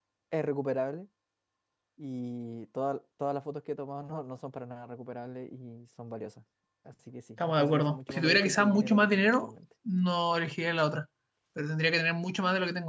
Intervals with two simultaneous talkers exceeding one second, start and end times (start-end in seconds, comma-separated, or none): 7.4-9.5